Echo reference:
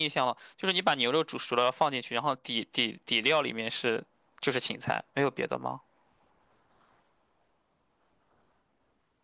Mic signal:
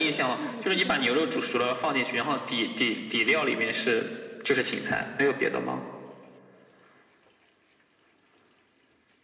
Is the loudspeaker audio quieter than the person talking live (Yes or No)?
No